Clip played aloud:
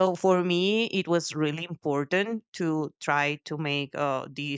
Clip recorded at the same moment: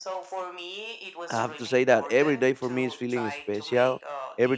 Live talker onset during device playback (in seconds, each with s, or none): 1.3 s